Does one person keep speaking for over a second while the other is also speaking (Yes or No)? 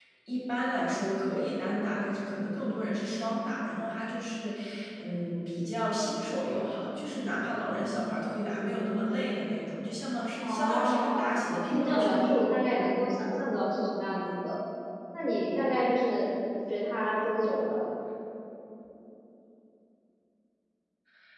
Yes